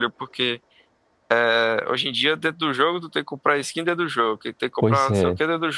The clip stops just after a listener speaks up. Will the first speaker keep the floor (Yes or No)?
Yes